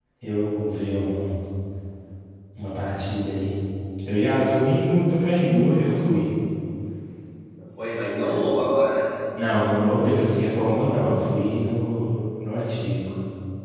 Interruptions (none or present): none